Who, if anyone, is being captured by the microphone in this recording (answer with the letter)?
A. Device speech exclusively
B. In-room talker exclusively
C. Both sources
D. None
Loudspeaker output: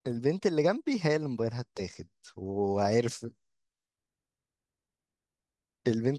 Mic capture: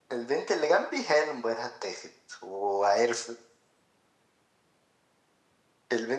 A